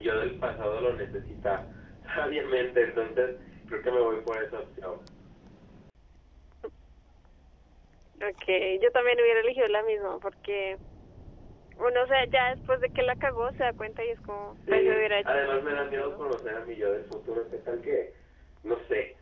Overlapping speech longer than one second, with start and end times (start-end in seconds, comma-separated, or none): 14.6-16.2